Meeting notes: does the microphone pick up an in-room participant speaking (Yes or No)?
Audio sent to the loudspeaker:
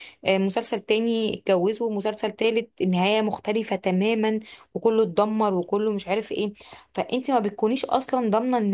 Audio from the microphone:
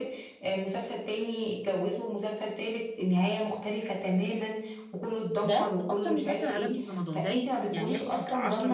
Yes